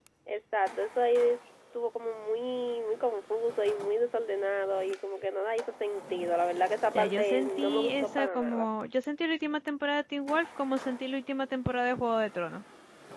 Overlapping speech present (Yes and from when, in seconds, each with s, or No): Yes, from 6.9 s